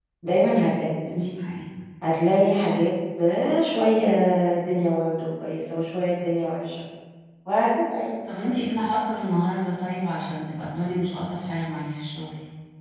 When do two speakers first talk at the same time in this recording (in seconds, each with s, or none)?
none